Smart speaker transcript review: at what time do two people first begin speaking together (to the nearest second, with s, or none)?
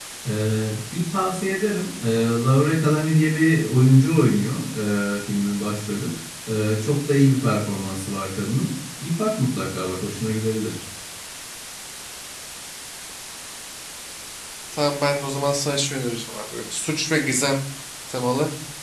none